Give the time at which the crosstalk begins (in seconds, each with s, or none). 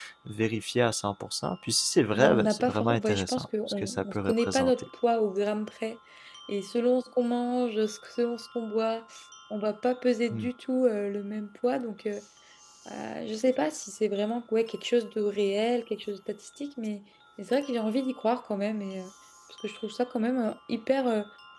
2.1 s